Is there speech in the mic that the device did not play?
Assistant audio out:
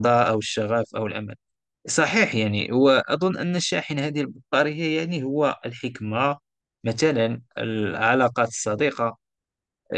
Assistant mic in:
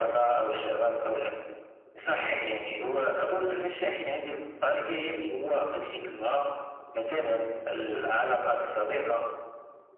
No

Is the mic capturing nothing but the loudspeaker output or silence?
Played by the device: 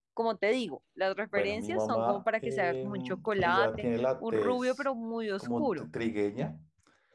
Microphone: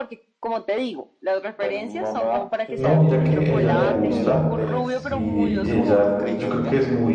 No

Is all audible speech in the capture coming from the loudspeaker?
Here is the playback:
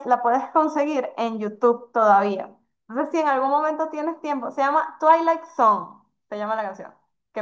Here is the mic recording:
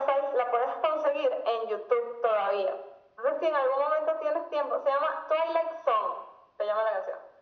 Yes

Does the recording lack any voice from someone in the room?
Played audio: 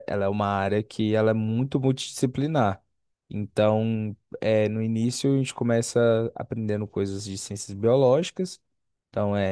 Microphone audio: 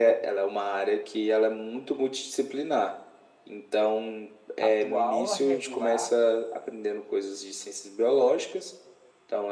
No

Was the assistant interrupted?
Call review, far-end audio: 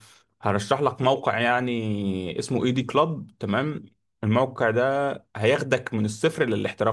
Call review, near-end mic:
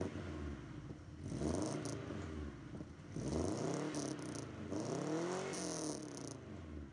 No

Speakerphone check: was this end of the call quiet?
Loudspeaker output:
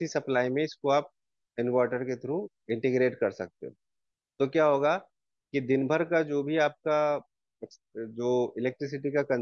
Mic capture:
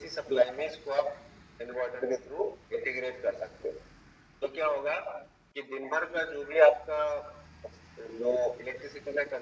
Yes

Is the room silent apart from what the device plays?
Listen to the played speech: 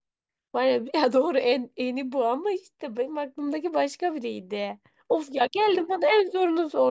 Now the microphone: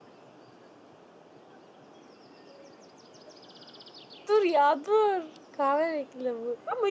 No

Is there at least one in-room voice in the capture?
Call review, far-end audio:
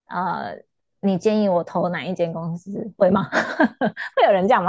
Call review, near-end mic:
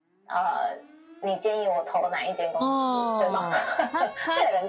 Yes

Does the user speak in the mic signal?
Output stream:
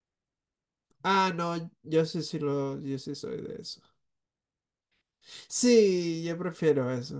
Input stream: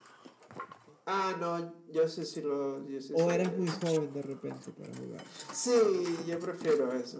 Yes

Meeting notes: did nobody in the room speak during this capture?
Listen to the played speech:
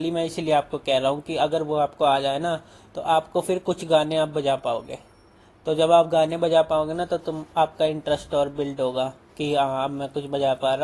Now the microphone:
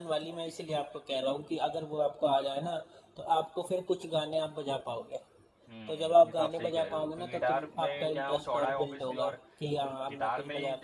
No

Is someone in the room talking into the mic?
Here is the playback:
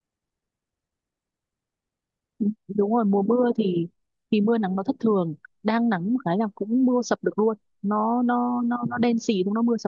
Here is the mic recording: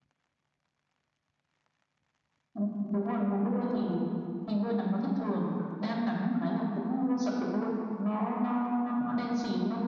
No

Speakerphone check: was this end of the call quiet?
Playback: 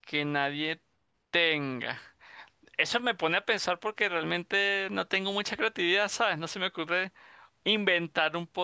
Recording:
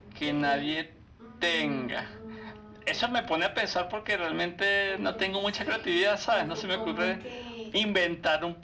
No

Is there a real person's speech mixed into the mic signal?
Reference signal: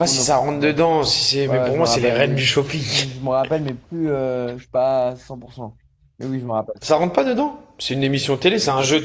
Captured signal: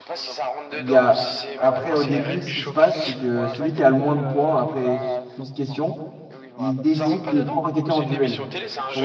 Yes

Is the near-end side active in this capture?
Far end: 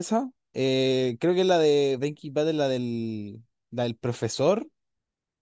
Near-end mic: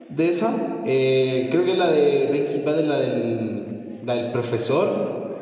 No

